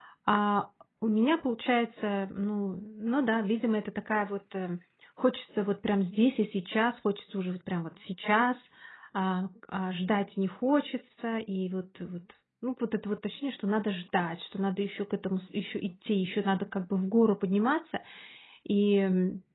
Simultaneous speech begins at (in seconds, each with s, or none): none